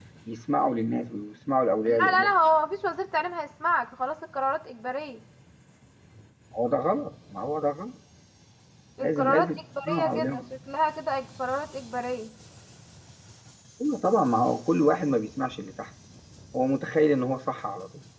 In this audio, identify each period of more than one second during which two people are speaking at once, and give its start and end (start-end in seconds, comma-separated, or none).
9.0-10.4